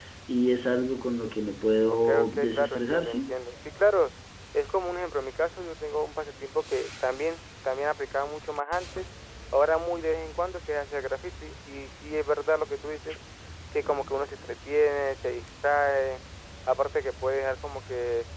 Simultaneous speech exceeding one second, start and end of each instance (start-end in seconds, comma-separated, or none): 1.9-3.3